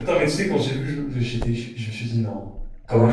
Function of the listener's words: taking over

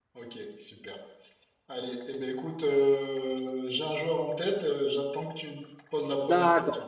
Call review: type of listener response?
taking over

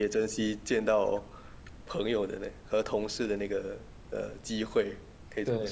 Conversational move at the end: taking over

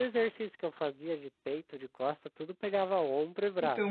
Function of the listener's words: taking over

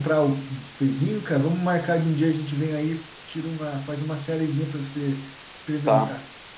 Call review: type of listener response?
taking over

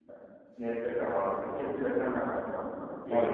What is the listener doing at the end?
taking over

